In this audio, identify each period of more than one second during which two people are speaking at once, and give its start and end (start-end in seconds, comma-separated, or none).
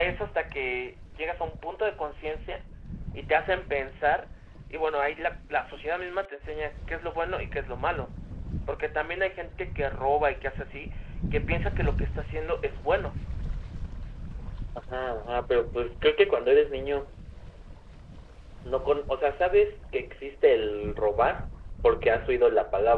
none